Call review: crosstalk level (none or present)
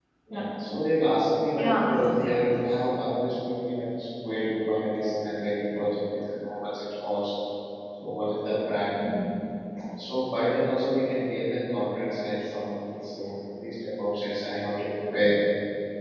present